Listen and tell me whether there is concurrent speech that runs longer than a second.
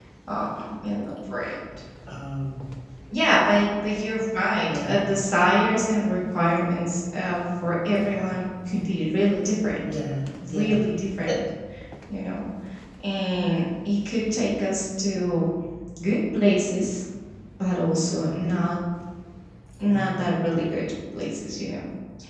No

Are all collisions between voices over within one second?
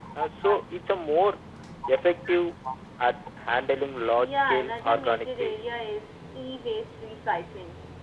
No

